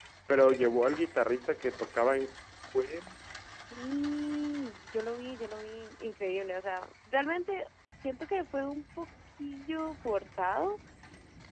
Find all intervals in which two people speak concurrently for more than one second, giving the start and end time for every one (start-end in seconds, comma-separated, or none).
none